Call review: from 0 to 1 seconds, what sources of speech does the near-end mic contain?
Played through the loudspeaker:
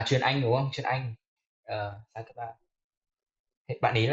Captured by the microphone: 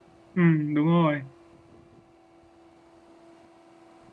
user only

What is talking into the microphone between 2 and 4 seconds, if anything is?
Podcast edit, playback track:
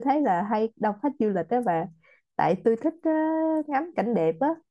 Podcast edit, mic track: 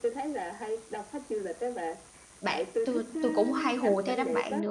both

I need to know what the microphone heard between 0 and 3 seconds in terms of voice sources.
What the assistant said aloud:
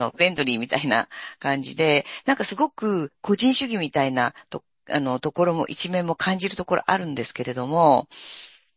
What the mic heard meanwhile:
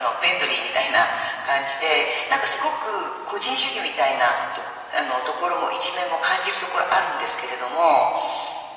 echo only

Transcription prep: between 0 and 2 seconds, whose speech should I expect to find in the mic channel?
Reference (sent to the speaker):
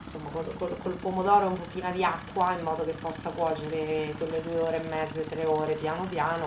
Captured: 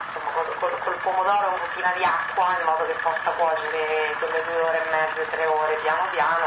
echo only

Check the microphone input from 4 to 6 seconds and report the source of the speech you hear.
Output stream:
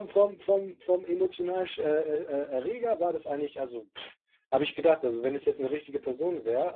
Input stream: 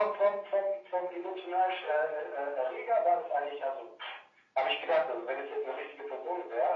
echo only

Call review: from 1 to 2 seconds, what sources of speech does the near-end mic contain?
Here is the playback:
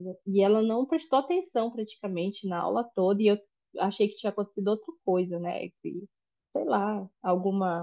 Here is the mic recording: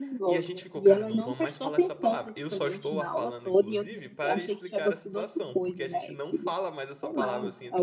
both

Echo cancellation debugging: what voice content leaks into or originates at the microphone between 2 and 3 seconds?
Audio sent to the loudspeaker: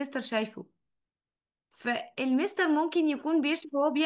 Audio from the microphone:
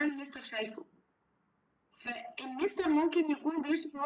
echo only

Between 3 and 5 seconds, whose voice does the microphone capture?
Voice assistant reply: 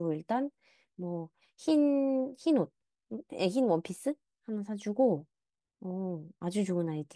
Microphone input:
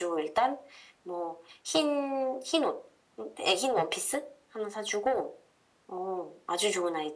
echo only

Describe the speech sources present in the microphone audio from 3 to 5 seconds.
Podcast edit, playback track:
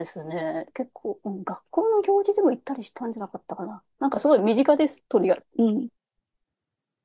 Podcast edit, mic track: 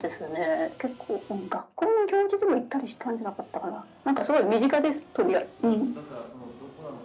echo only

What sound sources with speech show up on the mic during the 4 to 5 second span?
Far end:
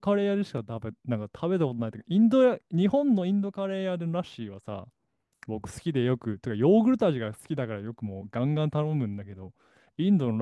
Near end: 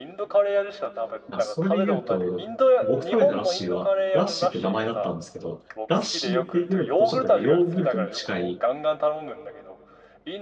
both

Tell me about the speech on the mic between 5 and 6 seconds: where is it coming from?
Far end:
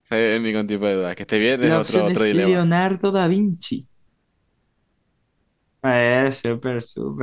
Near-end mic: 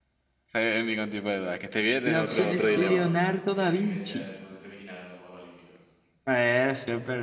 user only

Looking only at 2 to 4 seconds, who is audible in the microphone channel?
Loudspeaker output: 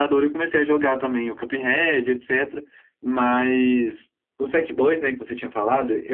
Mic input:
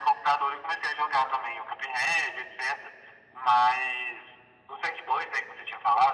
echo only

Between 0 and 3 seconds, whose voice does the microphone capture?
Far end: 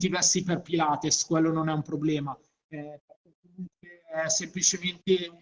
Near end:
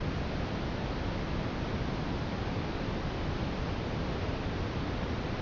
neither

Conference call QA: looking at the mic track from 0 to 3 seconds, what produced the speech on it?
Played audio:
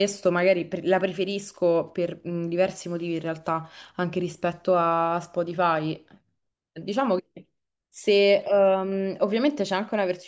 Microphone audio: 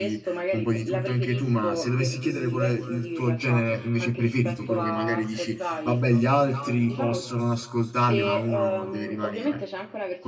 both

